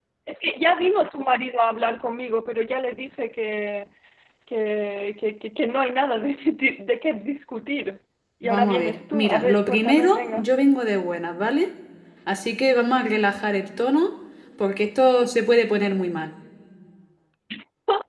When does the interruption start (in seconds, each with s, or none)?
8.4 s